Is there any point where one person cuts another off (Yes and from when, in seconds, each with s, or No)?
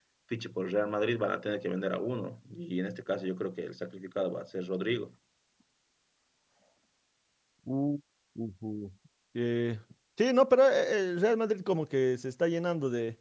No